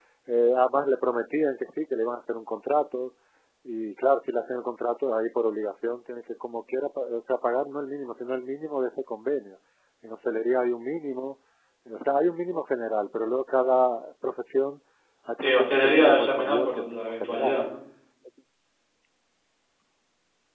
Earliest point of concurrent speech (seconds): 15.4 s

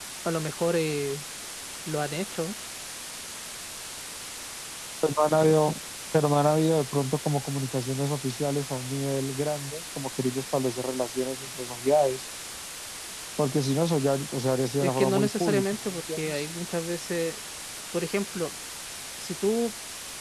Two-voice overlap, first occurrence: 14.8 s

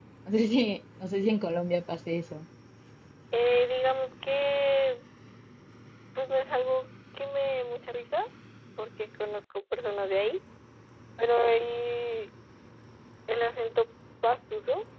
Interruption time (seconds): none

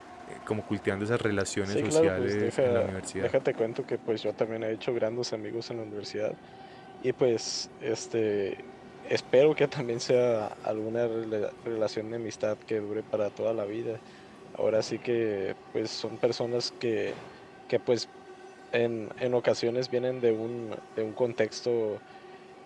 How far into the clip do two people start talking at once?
1.7 s

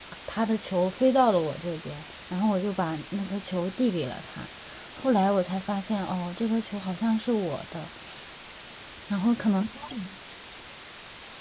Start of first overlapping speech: none

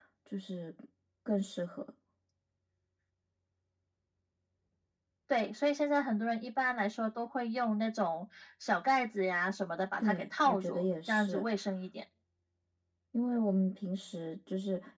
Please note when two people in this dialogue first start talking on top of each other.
10.0 s

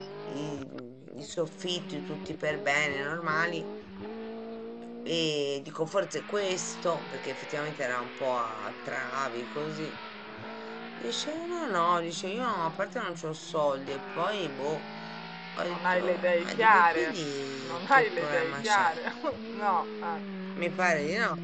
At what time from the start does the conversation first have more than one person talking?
15.7 s

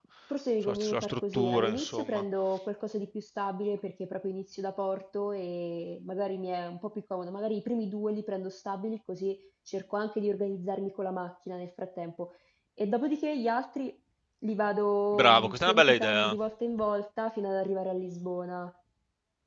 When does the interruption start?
0.6 s

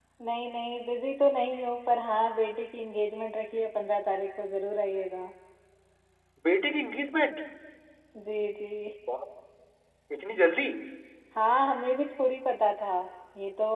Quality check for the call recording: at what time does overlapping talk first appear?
none

